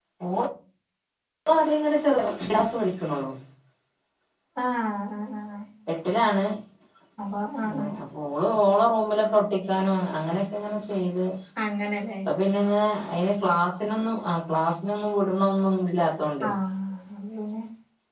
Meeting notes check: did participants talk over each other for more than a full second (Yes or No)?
No